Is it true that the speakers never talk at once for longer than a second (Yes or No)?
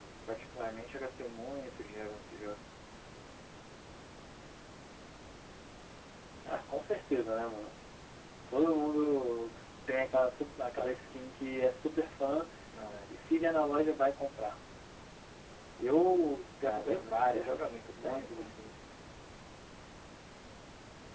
No